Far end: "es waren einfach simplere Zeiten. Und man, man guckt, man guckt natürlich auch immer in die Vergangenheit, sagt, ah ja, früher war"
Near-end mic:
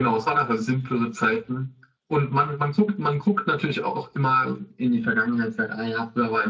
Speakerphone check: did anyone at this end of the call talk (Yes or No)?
No